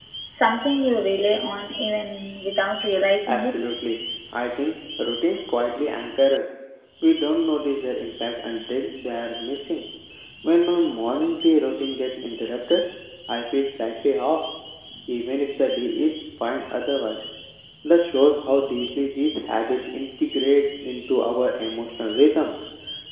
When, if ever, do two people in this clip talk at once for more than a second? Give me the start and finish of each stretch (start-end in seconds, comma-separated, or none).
none